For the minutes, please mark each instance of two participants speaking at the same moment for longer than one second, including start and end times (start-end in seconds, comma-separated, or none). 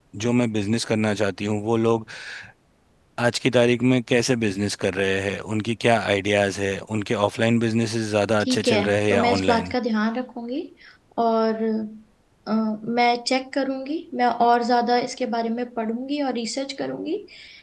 8.4-9.7